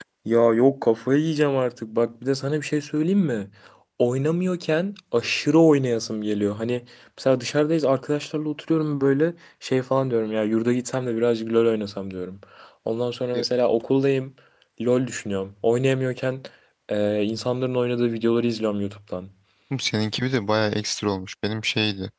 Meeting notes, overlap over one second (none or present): none